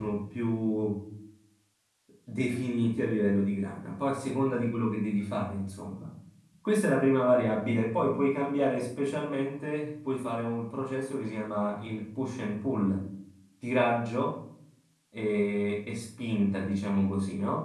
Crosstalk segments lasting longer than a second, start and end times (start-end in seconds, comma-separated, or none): none